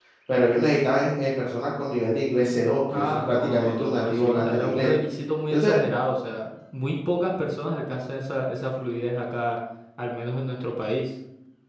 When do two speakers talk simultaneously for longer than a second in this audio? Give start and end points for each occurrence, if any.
2.9-4.9

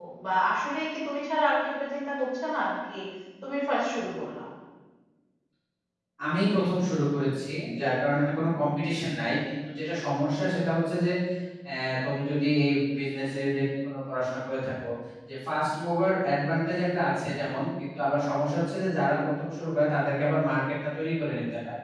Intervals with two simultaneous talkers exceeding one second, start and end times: none

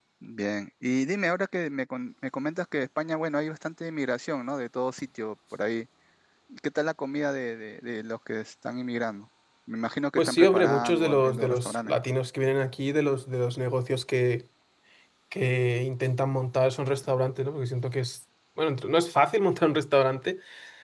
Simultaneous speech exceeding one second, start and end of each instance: 10.2-12.0

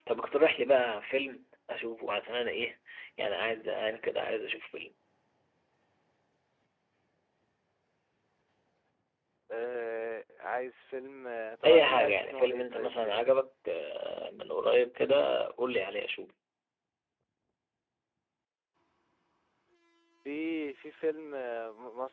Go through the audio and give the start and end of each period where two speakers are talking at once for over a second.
11.7-13.3

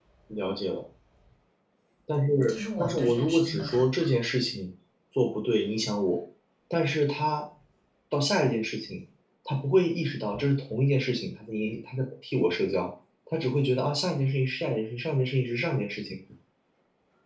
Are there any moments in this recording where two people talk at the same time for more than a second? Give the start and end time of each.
2.5-3.9

